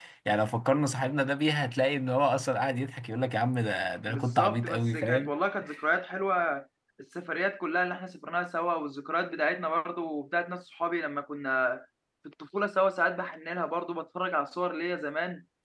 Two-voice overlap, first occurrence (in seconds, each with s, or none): 4.1 s